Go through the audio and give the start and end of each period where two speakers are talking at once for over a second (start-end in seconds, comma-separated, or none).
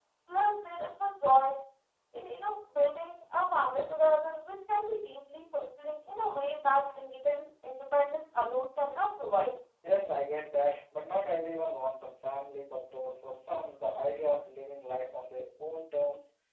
none